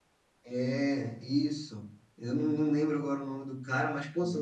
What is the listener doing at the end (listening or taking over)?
listening